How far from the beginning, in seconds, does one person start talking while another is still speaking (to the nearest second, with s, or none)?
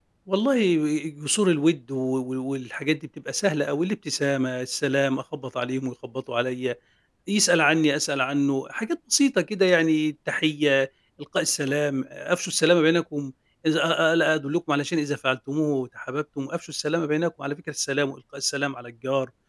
none